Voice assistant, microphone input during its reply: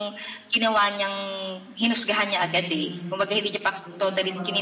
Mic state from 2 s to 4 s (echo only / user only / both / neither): both